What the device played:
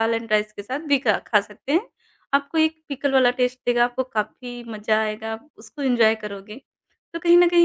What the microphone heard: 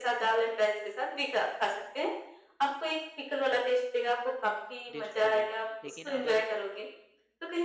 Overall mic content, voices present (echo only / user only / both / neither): both